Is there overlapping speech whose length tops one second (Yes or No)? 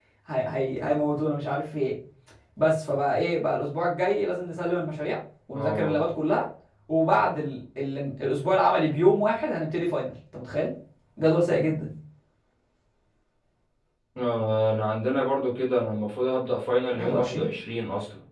No